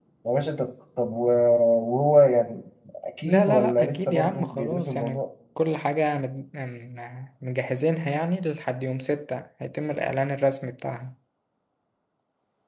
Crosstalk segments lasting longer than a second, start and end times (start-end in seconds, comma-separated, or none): 3.2-5.2